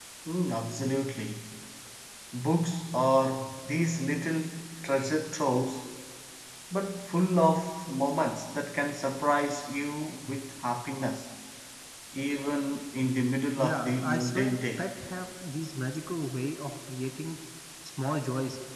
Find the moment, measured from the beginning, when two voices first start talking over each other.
13.6 s

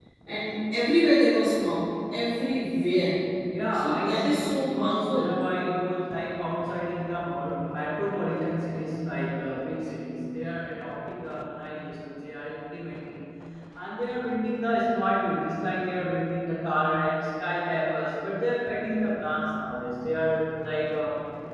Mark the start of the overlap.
3.7 s

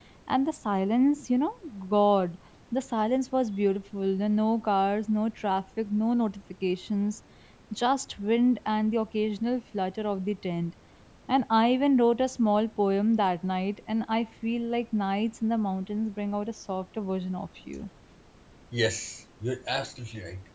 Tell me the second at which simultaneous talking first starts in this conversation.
none

